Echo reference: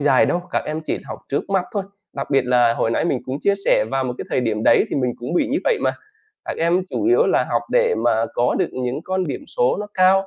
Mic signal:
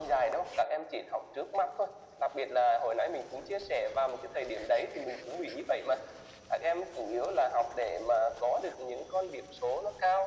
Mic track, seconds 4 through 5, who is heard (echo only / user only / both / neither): echo only